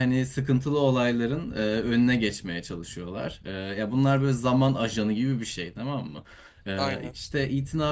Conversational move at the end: listening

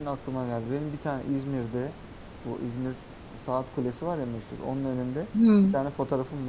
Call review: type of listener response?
listening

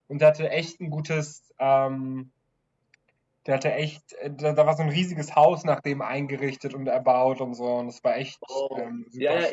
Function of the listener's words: taking over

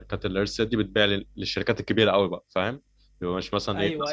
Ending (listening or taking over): taking over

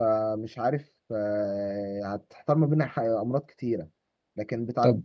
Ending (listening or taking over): listening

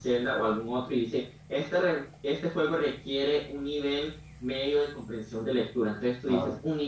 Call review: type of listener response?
listening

